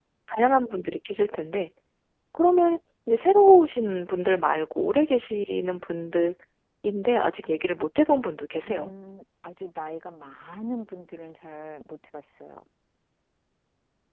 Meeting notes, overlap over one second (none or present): none